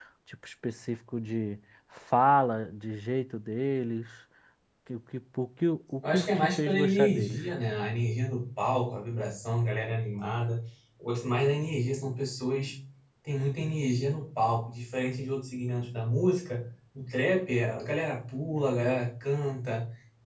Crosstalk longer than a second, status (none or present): present